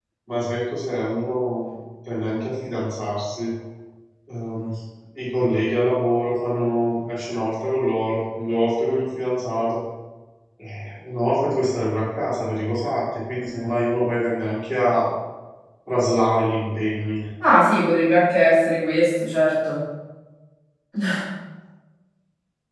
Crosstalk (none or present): none